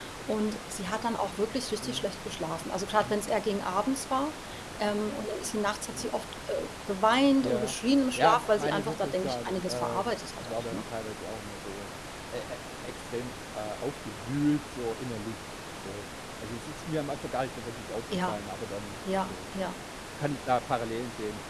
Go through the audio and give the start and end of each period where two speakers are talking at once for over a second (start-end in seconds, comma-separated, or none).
8.2-10.8